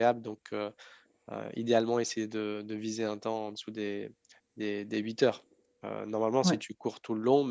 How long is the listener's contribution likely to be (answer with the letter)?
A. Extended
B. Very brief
B